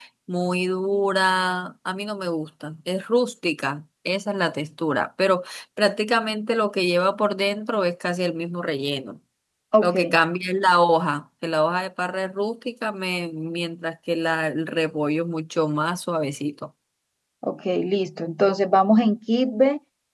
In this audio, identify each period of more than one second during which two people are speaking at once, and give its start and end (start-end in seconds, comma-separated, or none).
none